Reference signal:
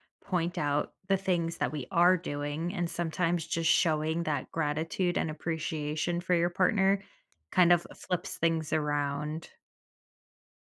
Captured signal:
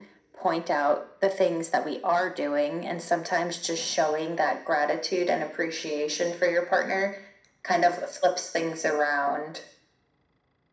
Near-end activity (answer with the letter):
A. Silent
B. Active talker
A